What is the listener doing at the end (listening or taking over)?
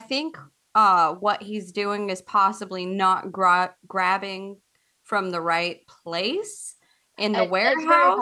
taking over